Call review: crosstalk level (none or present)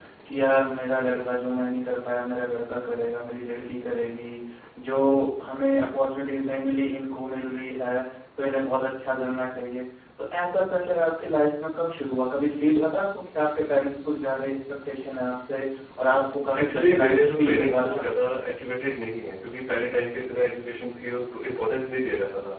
present